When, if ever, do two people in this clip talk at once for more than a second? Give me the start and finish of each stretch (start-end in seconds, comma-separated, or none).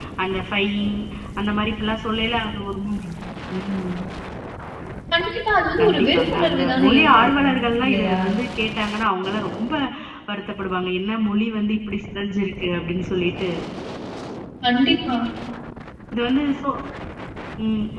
5.8-8.2